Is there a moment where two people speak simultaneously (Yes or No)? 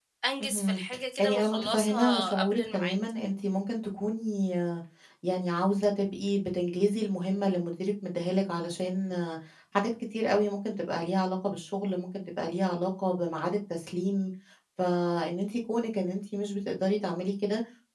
Yes